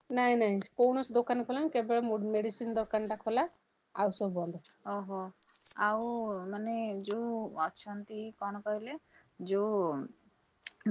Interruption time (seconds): none

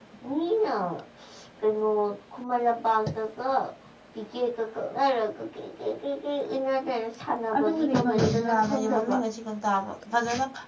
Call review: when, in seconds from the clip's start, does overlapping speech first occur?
7.5 s

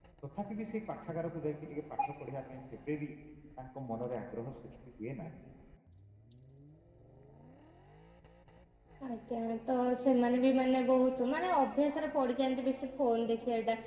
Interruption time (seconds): none

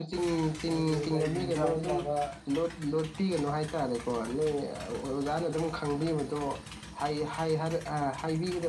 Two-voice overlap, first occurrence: 0.7 s

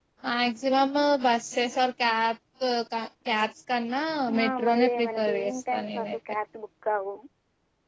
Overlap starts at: 4.3 s

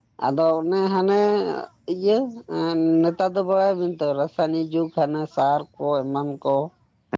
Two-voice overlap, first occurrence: none

